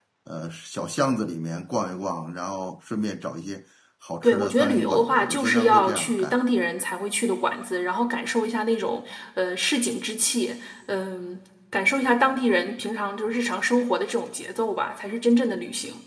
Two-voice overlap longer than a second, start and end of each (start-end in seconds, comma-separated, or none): 4.2-6.4